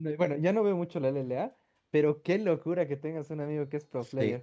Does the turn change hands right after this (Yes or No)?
Yes